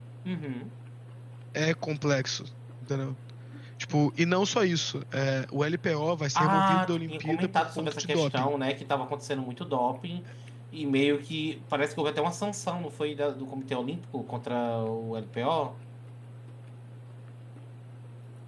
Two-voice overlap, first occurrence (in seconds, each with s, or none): 6.4 s